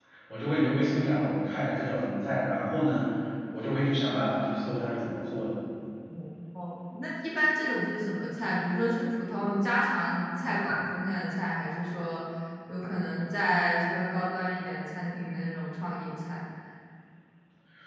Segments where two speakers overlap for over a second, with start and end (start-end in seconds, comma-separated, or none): none